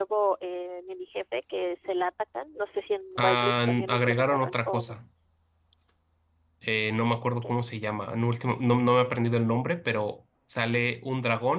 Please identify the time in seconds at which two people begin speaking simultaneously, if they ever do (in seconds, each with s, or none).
3.2 s